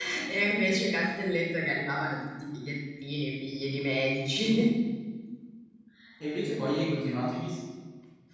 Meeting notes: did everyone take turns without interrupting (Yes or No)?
Yes